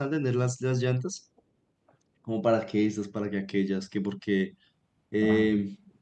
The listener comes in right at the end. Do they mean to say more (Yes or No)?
No